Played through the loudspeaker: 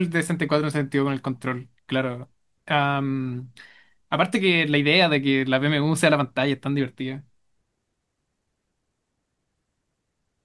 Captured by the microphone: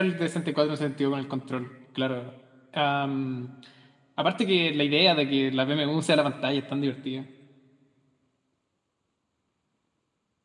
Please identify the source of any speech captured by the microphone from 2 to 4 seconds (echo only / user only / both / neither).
echo only